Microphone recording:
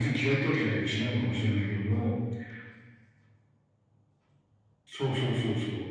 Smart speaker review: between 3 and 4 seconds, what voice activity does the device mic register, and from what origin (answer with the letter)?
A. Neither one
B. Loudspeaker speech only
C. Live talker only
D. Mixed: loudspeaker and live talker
A